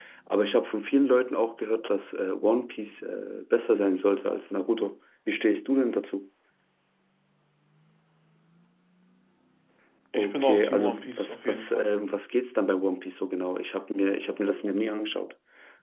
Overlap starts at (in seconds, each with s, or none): 10.2 s